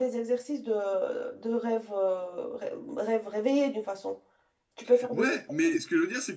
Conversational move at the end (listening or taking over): taking over